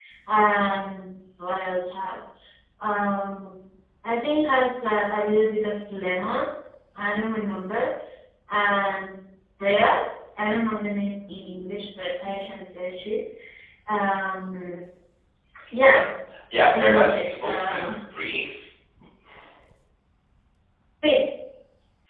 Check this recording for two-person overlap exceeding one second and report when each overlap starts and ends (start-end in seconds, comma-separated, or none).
16.6-17.8